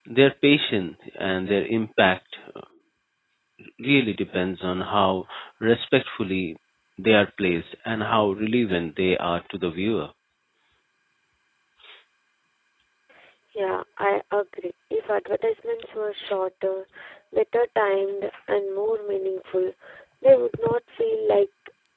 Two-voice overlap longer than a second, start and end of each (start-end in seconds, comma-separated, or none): none